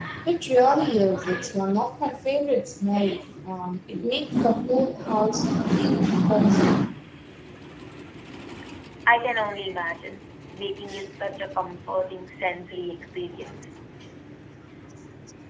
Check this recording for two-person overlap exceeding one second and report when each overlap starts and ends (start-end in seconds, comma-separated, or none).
none